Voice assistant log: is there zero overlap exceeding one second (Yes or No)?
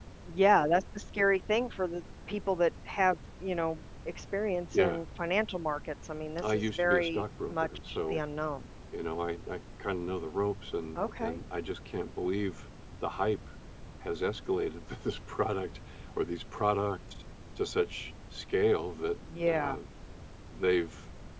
No